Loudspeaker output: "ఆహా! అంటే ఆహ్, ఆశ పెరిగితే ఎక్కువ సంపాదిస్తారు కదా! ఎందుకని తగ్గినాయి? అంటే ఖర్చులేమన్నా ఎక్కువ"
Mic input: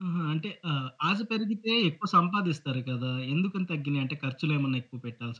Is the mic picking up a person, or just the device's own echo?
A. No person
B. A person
A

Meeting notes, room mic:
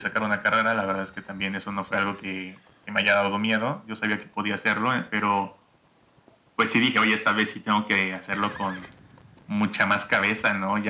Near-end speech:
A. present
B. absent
B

